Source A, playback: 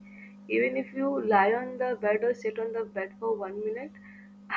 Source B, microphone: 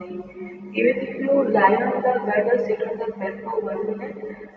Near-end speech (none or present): none